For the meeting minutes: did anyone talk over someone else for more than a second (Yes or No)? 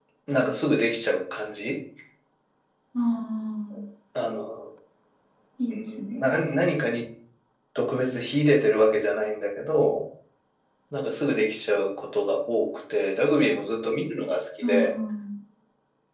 No